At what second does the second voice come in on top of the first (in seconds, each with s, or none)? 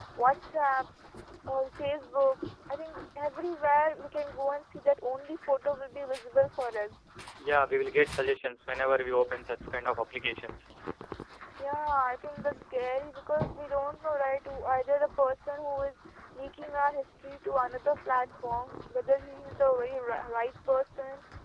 none